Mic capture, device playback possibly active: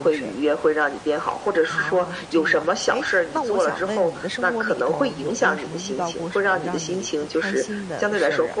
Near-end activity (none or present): present